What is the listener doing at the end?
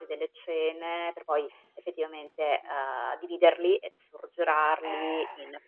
listening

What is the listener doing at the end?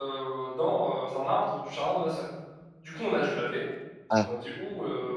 listening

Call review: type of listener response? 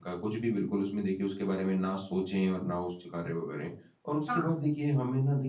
listening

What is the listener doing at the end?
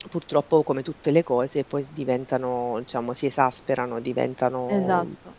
taking over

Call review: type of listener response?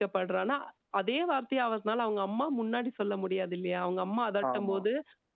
listening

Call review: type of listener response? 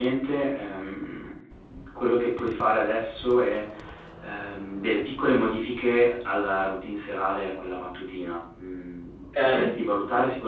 listening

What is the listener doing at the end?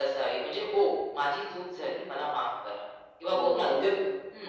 taking over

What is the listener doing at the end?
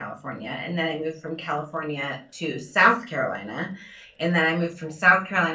listening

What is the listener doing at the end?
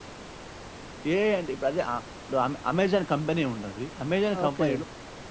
listening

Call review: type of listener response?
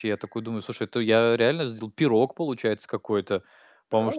listening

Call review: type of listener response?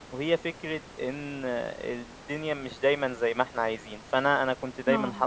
listening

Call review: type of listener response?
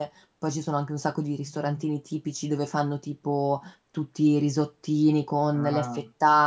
listening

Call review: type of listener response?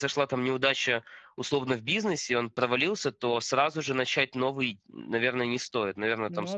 listening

